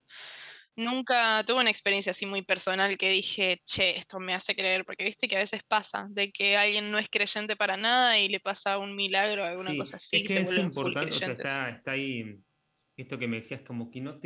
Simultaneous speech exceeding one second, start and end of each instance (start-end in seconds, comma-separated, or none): 9.6-11.5